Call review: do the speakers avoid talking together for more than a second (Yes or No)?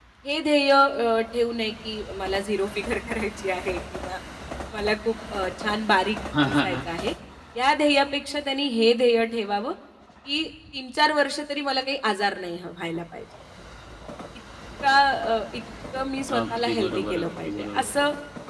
No